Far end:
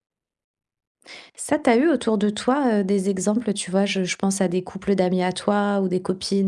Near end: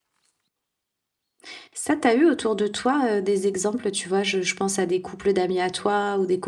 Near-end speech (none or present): none